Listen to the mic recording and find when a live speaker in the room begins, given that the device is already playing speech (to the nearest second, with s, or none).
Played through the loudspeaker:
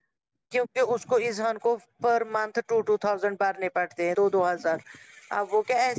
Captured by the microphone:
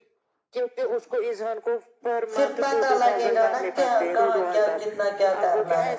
2 s